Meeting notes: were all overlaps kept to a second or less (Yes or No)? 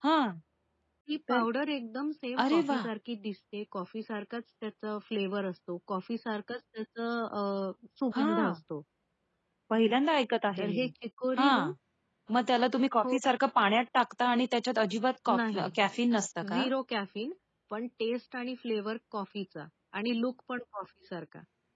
Yes